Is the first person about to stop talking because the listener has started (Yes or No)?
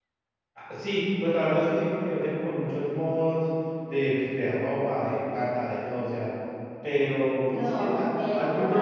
Yes